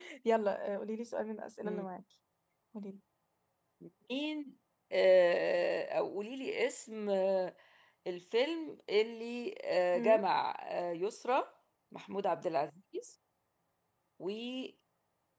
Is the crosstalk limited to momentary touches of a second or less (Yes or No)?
Yes